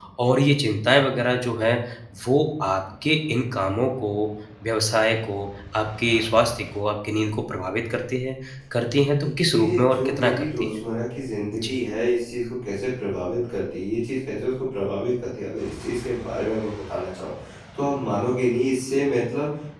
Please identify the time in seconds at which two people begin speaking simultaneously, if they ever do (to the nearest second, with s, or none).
9 s